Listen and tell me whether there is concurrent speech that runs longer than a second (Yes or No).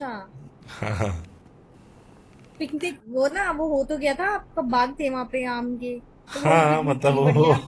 Yes